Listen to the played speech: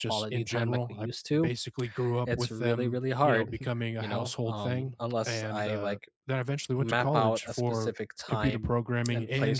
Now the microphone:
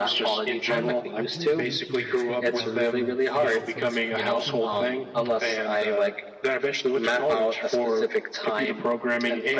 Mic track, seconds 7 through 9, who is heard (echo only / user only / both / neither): echo only